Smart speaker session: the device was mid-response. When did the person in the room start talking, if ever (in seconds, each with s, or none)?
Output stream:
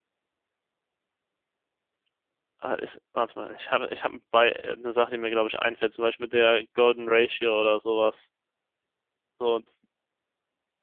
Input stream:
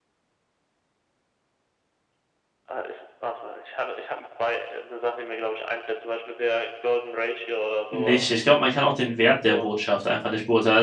7.9 s